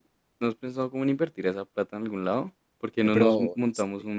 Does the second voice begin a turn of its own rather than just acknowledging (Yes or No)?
No